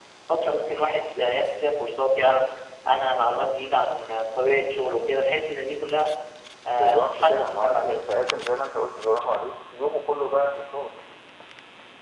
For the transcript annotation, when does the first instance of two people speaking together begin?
6.7 s

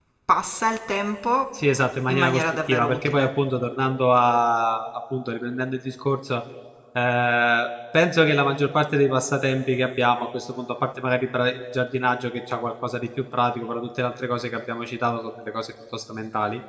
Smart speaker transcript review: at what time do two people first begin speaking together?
2.1 s

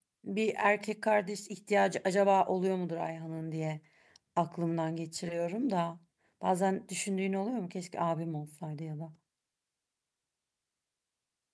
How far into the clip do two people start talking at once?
none

